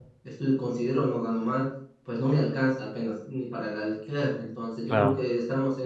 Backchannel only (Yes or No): Yes